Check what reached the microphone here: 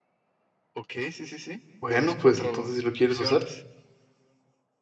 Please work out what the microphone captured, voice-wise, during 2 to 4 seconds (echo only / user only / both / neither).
both